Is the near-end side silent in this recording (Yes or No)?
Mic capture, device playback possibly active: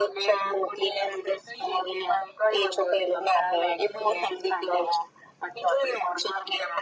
Yes